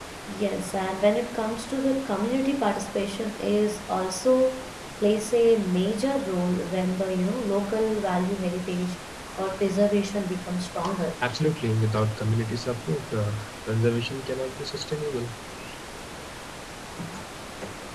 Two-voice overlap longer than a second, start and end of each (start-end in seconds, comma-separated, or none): none